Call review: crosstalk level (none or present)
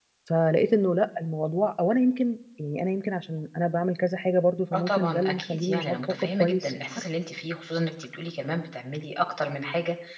present